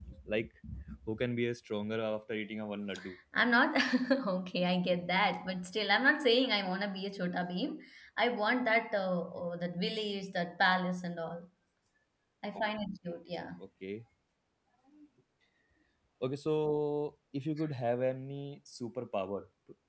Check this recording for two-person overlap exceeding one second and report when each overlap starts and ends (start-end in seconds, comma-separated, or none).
none